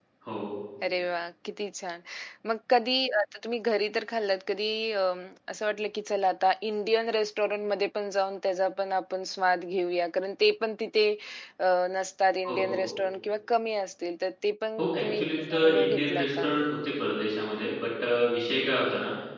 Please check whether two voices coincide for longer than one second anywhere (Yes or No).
Yes